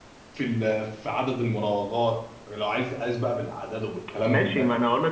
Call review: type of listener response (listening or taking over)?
taking over